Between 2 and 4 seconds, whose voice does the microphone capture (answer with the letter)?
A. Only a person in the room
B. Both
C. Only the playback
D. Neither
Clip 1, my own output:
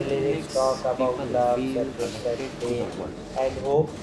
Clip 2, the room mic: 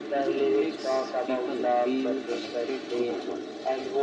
C